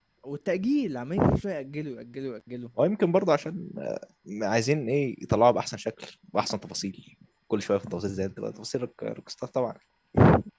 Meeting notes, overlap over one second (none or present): none